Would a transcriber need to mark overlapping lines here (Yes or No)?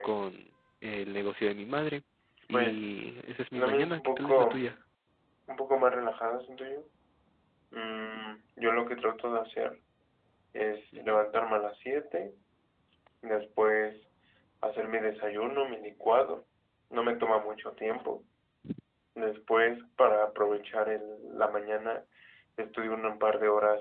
Yes